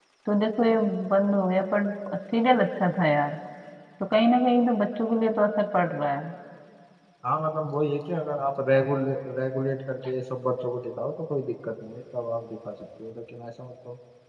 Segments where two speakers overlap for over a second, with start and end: none

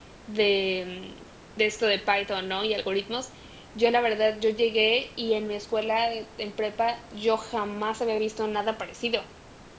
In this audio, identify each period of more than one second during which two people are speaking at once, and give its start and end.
none

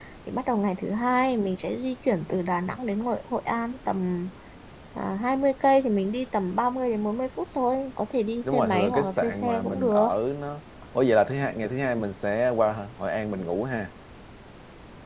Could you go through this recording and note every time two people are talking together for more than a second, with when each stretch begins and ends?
8.4-10.1

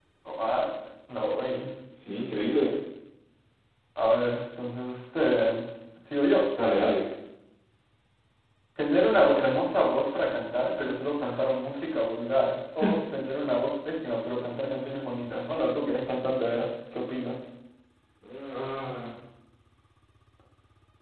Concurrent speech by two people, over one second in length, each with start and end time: none

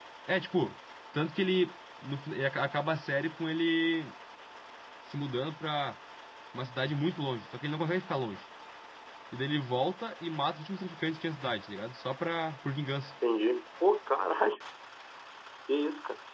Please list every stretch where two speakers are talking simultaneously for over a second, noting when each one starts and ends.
none

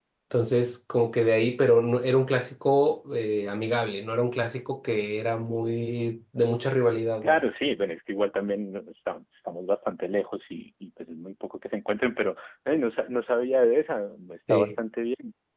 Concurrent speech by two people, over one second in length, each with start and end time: none

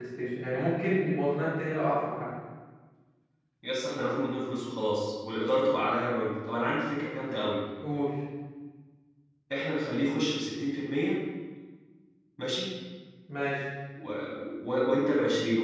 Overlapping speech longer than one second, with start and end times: none

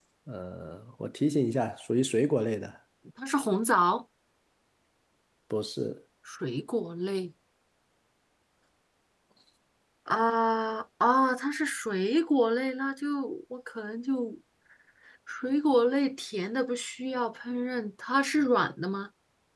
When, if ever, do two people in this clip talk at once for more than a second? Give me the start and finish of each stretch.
none

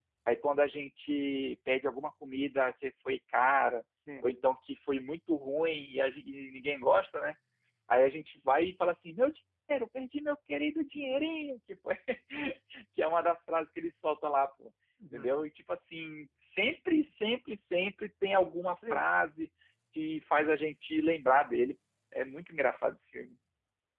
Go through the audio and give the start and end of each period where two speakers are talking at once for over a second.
none

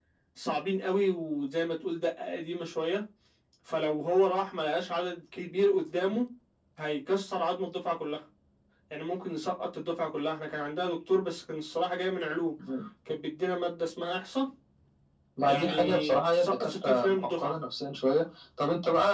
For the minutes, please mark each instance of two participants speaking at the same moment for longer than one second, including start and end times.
15.4-17.5

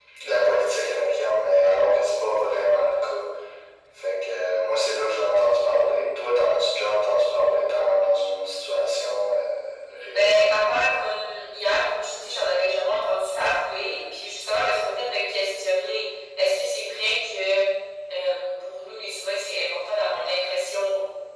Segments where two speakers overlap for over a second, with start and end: none

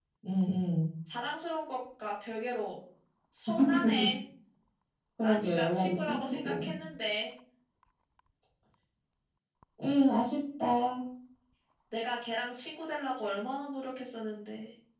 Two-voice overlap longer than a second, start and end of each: 5.2-6.7

